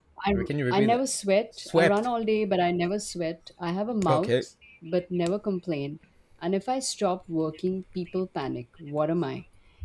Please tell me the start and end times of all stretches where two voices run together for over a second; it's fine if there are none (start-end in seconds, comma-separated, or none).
none